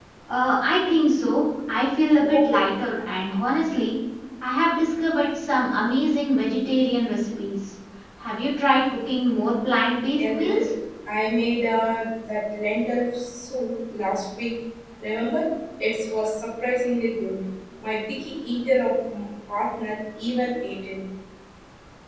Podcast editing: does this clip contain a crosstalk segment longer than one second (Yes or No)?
No